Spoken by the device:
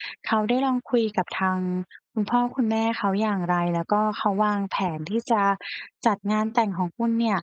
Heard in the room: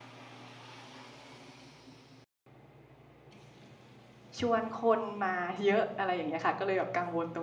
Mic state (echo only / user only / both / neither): user only